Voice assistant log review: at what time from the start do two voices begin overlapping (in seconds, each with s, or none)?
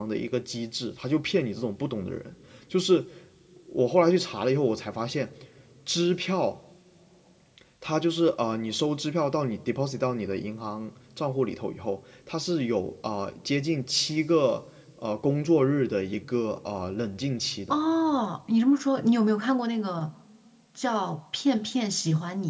none